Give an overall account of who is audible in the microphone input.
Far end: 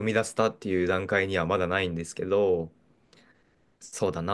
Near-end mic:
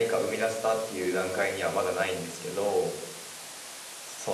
echo only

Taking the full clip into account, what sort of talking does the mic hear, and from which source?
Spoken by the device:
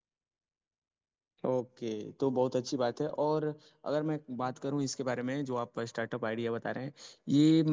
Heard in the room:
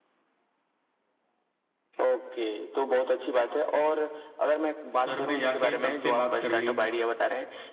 both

